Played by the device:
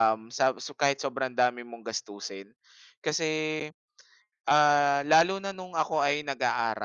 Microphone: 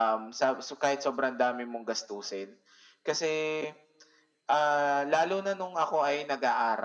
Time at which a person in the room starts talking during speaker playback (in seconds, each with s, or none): none